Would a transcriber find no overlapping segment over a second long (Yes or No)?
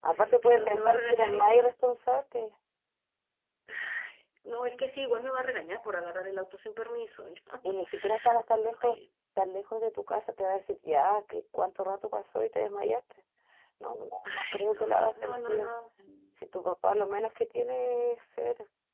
No